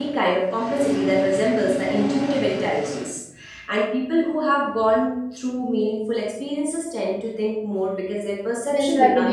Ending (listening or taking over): taking over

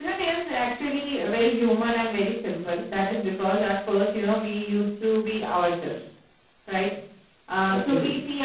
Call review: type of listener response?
listening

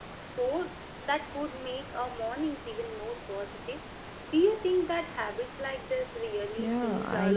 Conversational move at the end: taking over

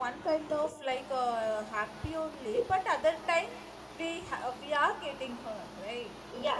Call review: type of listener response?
taking over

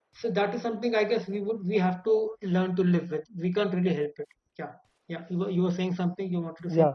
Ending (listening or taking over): taking over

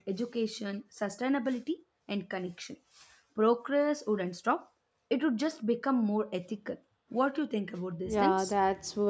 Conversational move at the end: taking over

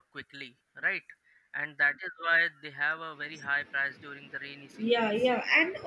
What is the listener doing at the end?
taking over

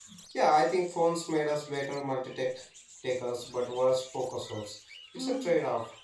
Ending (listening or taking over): taking over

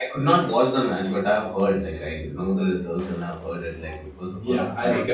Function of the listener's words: taking over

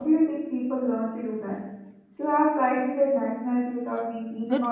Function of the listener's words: taking over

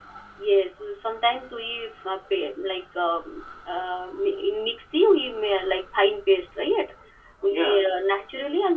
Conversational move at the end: listening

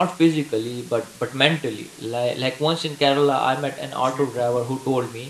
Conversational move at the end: listening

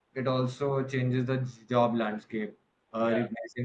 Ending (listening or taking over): listening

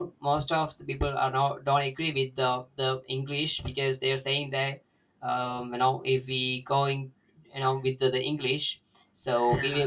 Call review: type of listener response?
listening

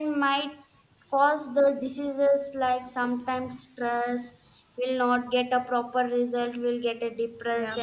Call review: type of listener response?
taking over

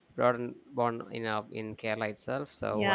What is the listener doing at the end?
taking over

